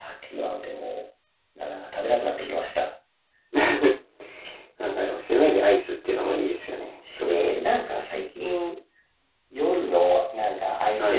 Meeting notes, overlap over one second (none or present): none